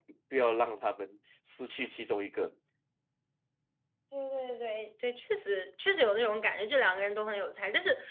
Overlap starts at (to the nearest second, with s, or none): none